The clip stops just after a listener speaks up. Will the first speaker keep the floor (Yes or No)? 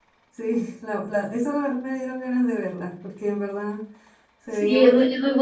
No